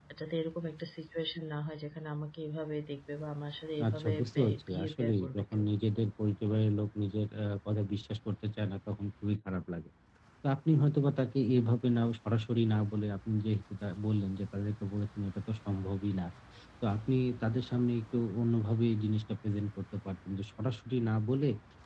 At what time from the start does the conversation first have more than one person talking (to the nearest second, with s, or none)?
4 s